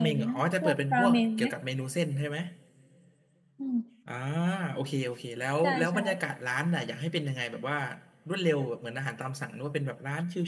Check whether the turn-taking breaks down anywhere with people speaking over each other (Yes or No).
Yes